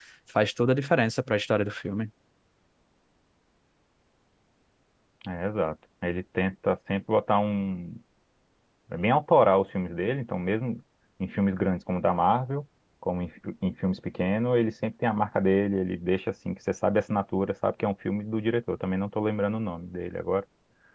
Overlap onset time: none

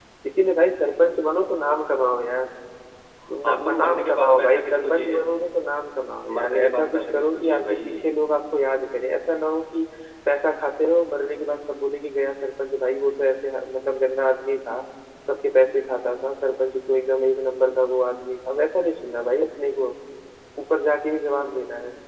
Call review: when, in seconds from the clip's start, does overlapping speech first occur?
3 s

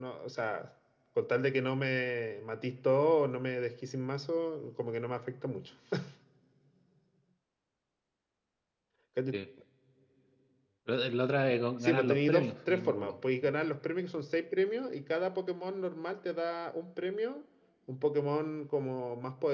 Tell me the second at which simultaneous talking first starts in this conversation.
12 s

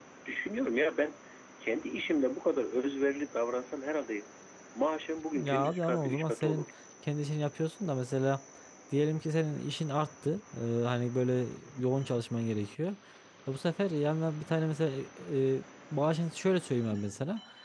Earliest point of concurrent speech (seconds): 5 s

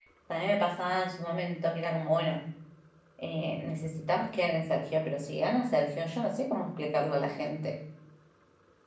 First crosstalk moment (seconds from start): none

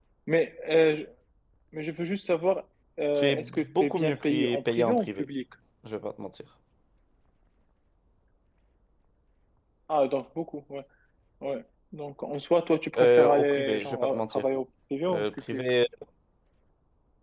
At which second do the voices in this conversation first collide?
3 s

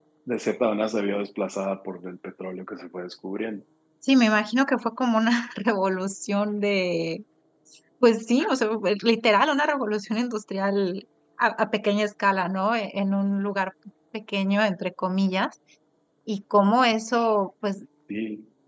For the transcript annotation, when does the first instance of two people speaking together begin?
none

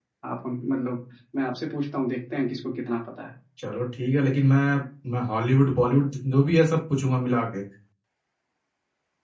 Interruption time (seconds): none

